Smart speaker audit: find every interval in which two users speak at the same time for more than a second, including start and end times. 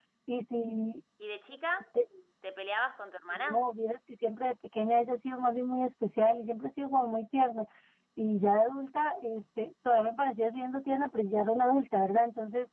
none

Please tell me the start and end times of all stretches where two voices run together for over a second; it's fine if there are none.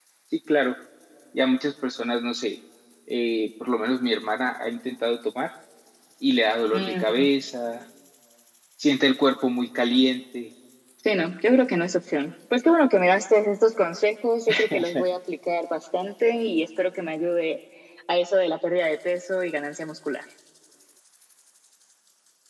none

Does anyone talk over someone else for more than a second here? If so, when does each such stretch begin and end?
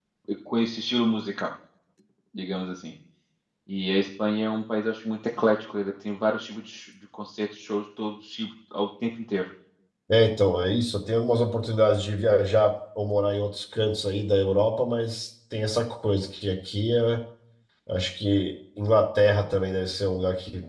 none

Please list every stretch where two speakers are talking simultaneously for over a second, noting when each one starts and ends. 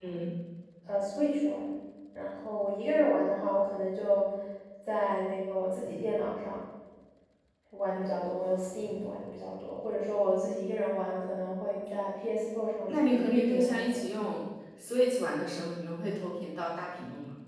12.9-14.1

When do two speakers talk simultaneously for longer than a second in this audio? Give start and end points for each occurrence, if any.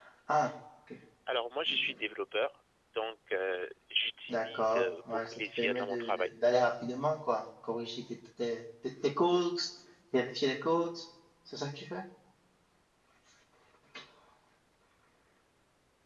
4.3-6.3

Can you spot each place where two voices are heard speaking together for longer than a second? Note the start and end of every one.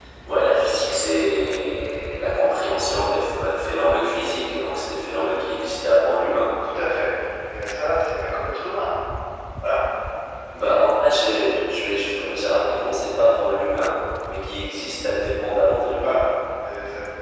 none

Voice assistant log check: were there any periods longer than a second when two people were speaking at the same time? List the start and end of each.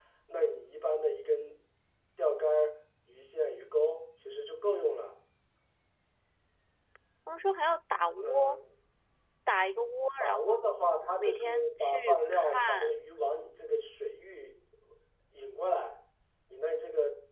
11.2-13.0

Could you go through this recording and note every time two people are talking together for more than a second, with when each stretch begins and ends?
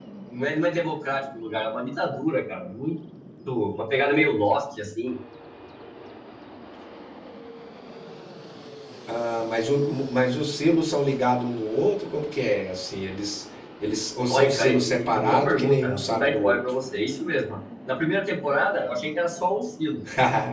14.3-16.6

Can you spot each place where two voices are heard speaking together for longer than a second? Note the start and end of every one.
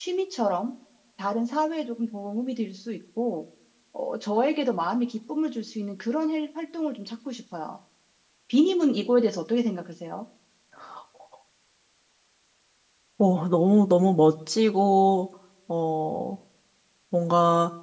none

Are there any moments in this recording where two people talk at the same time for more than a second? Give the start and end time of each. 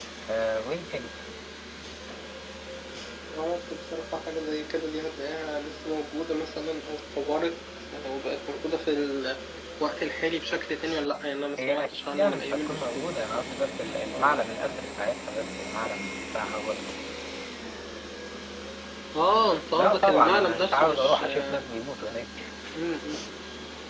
11.6-13.1, 19.7-21.6

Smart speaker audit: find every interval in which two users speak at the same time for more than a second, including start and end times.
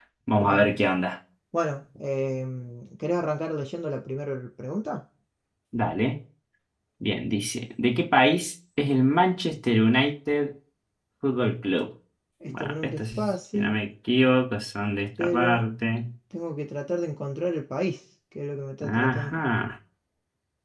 12.5-13.8

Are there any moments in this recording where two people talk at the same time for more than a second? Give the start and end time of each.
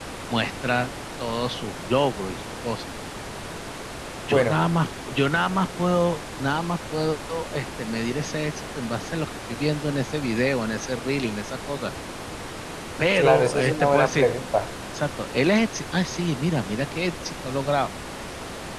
13.1-14.4

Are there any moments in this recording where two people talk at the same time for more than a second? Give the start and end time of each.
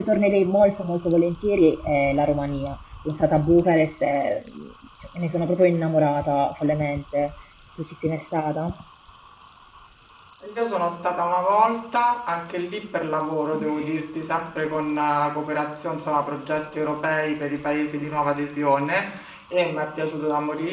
none

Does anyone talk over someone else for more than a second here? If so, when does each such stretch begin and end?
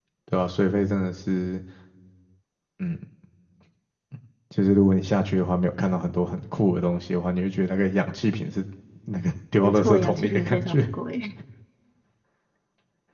9.6-10.8

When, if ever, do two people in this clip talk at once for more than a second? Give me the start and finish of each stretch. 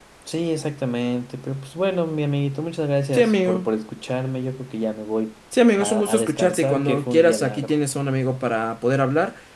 5.8-7.7

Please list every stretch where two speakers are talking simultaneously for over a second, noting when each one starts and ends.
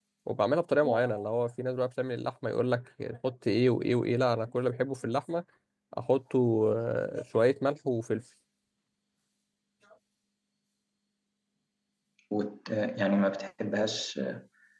none

